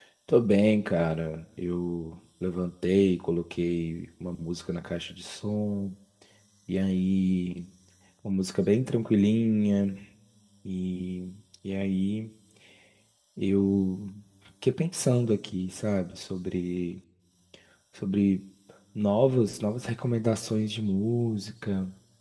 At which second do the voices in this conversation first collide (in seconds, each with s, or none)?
none